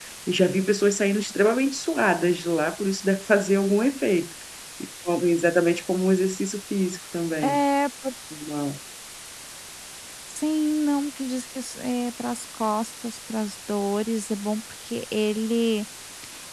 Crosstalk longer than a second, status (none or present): none